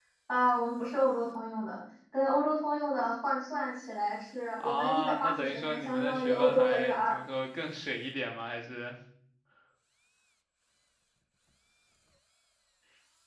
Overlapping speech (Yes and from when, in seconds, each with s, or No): Yes, from 4.6 s